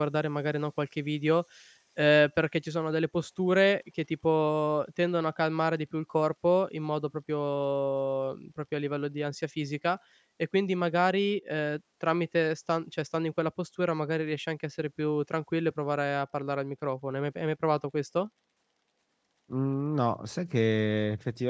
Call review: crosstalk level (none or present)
none